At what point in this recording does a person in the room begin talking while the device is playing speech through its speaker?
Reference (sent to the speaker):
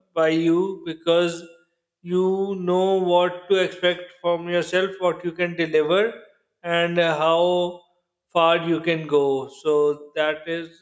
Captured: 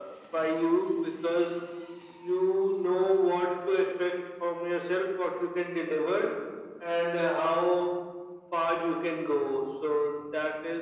none

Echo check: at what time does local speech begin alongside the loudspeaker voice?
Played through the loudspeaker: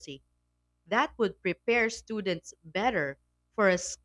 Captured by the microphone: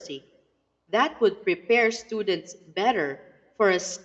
none

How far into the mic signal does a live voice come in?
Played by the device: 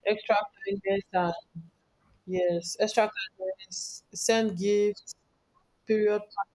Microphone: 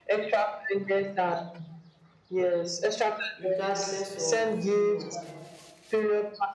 3.4 s

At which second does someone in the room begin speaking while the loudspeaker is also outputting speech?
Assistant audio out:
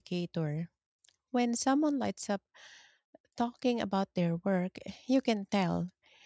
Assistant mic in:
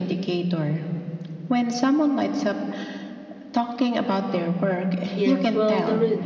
5.1 s

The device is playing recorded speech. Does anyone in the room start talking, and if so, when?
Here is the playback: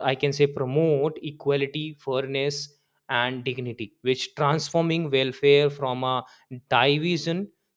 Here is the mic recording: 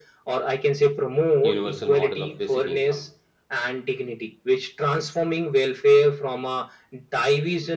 1.4 s

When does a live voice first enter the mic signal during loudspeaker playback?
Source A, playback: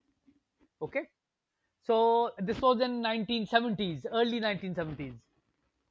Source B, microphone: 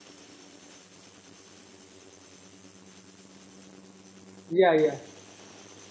4.5 s

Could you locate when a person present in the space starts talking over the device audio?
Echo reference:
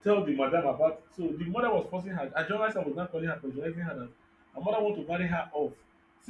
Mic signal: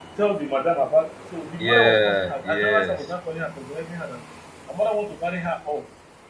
1.6 s

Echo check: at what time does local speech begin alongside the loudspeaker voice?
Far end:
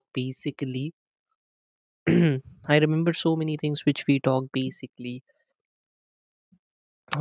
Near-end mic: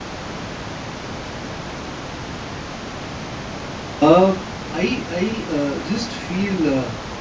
4.0 s

